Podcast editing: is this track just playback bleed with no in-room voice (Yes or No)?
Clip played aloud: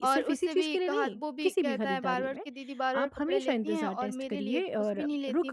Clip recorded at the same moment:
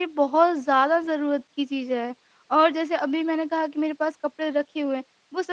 No